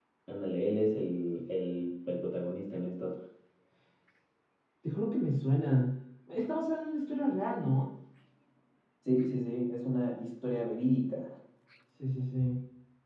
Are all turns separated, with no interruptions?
Yes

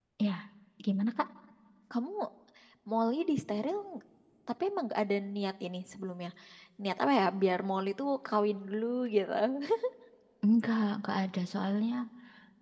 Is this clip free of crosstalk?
Yes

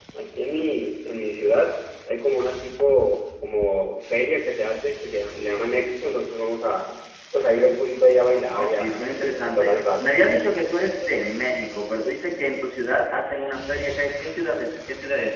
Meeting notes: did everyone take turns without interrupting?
No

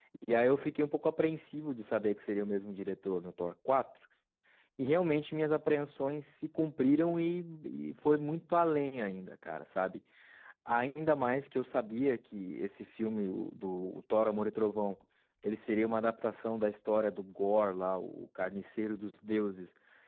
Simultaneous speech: No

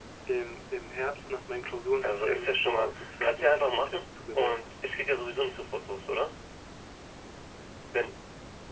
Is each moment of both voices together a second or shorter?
No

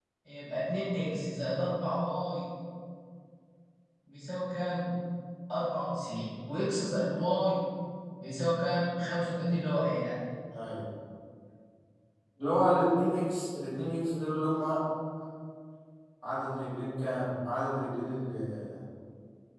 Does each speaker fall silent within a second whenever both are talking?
Yes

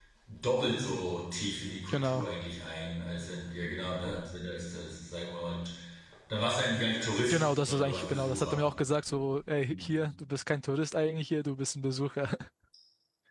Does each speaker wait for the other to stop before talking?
No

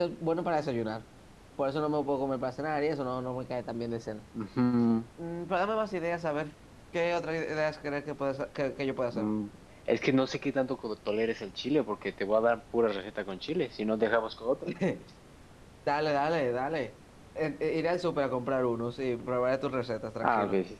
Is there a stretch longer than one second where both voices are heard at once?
No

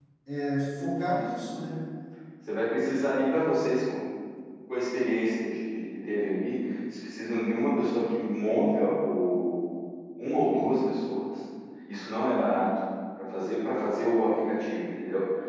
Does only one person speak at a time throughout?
Yes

